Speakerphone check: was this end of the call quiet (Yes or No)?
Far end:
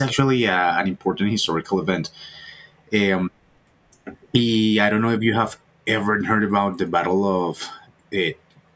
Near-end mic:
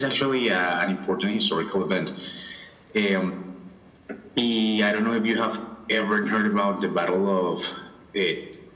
Yes